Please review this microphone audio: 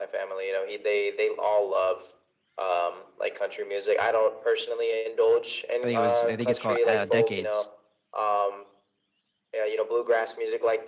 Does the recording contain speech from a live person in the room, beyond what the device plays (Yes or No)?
Yes